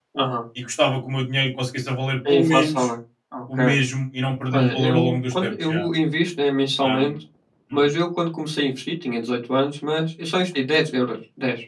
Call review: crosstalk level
present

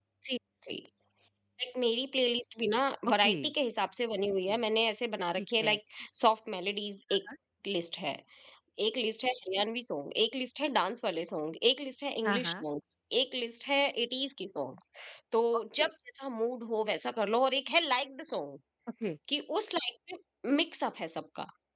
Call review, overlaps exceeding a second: none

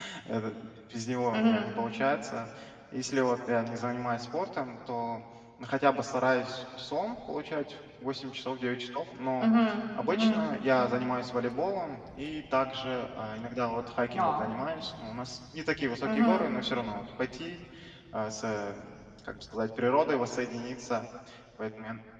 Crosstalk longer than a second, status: none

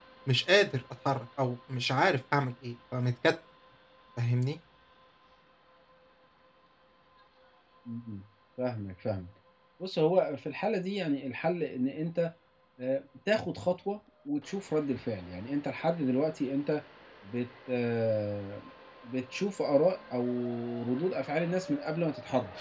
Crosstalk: none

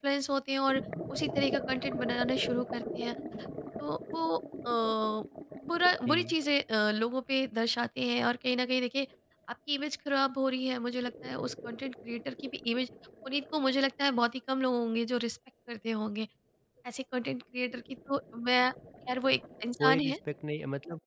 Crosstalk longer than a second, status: none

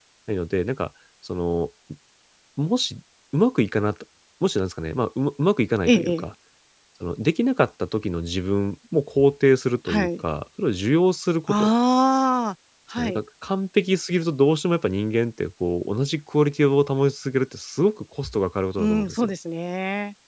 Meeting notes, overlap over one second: none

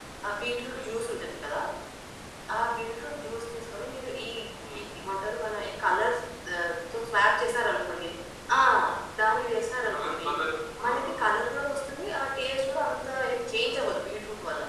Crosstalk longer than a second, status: none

